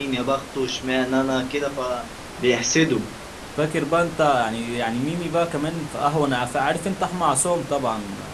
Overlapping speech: No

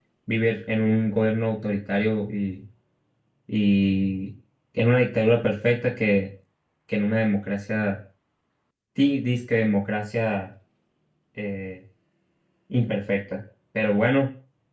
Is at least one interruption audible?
No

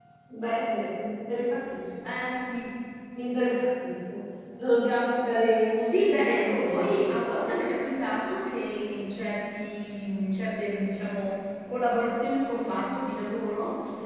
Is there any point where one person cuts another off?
Yes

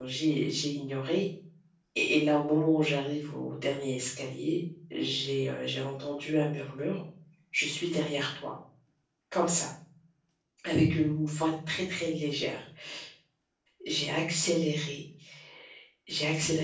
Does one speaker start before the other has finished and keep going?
No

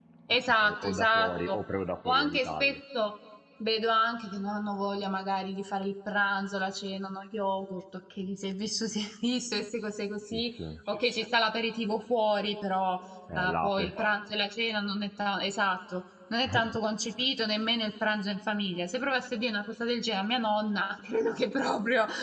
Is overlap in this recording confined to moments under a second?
No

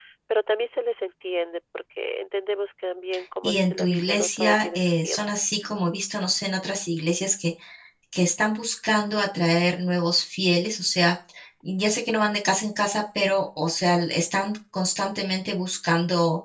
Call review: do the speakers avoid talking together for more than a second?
No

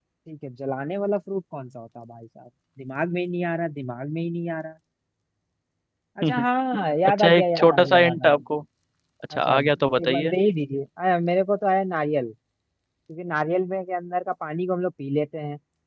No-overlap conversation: No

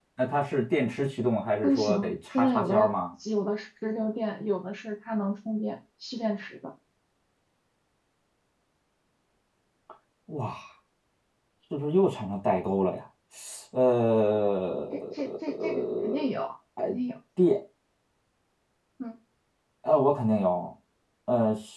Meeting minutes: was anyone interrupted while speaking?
Yes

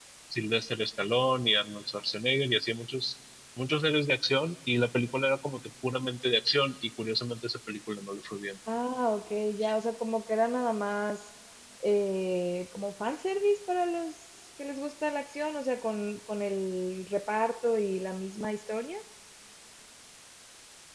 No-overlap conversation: Yes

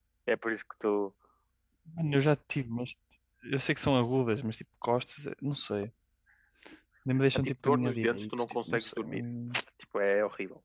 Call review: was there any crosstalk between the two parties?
Yes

